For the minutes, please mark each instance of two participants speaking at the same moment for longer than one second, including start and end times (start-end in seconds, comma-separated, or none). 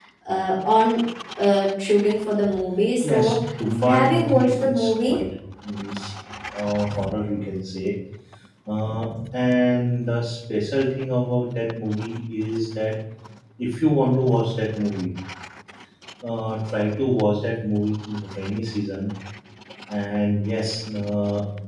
3.9-5.2